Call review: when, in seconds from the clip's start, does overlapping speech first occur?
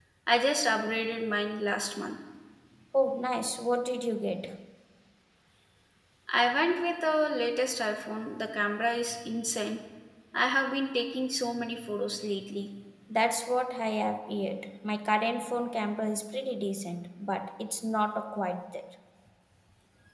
none

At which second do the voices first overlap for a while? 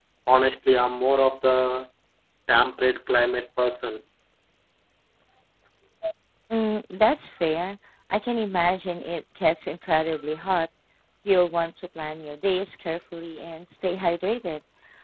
none

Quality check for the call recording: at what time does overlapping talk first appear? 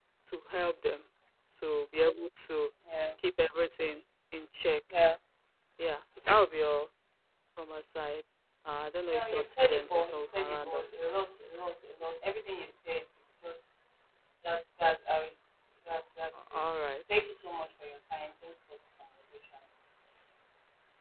9 s

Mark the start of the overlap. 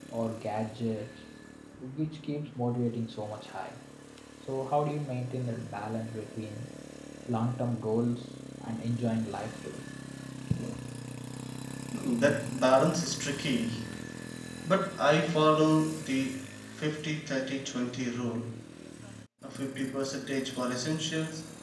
none

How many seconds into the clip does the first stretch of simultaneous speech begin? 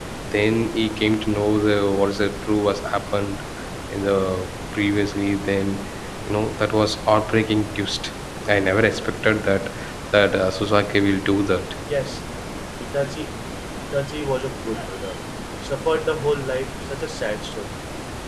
none

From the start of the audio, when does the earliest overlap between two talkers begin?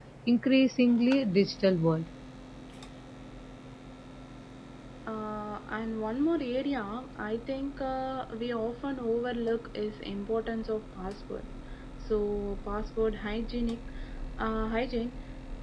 none

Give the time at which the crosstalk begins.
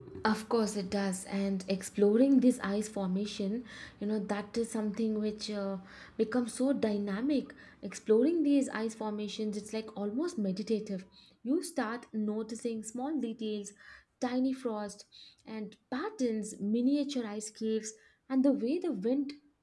none

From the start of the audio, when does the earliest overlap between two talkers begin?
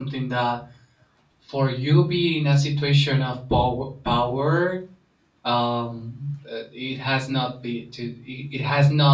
none

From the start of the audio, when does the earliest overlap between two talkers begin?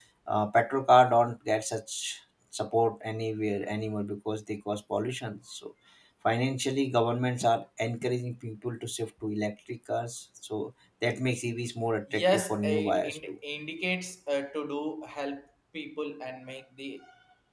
12 s

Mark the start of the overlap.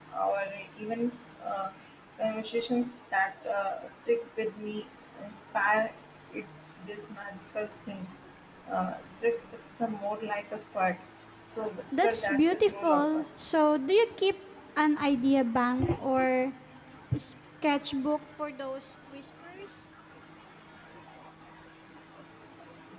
12 s

